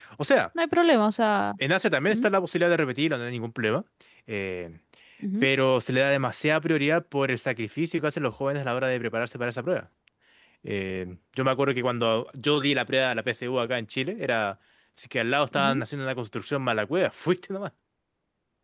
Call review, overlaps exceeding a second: none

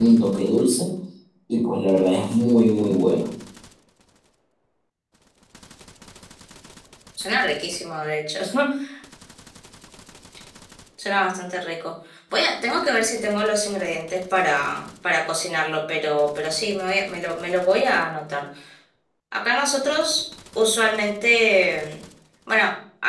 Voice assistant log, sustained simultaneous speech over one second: none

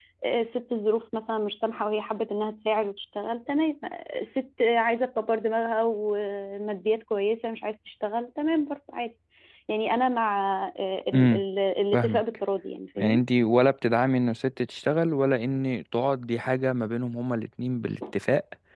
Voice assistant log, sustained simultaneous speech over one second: none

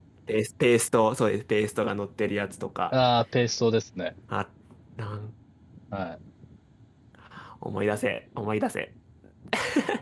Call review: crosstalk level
none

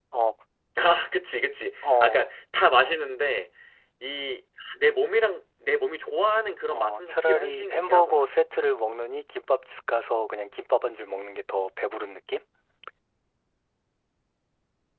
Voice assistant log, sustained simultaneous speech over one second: present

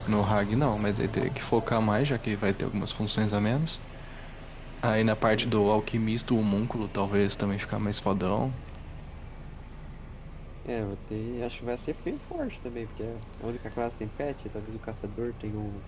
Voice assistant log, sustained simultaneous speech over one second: none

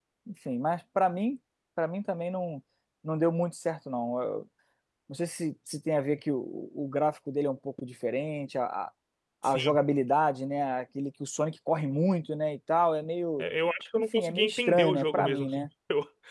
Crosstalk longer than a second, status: present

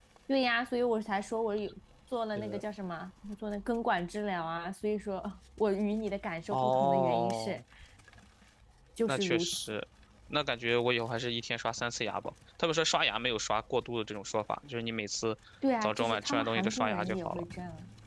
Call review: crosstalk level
present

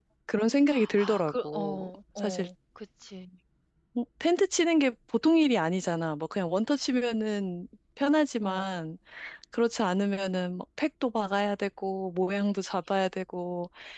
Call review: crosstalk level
present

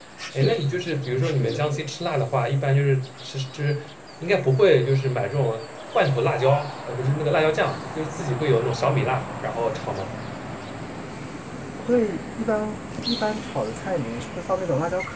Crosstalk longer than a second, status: none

